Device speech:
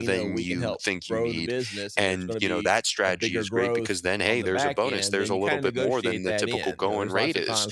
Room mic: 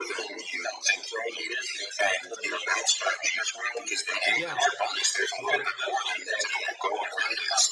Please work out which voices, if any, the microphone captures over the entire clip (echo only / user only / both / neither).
both